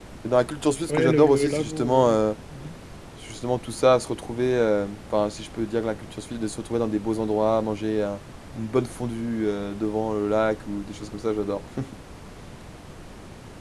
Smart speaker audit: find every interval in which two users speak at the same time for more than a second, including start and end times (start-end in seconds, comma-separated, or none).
0.9-2.2